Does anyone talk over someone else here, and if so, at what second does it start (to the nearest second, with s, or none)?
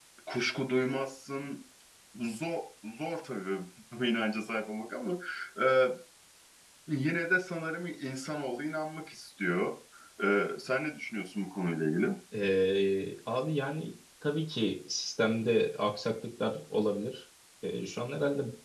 none